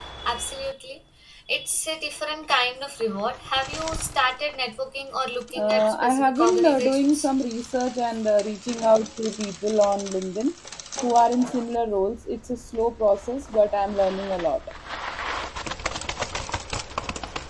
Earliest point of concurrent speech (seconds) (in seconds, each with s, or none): 5.5 s